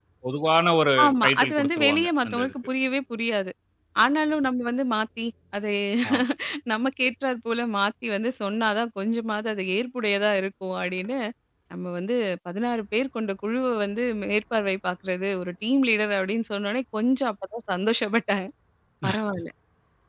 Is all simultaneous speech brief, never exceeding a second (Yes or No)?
No